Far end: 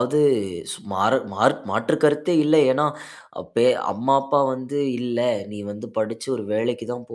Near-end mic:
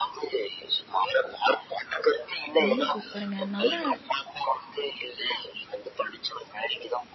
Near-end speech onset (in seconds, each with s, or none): 2.6 s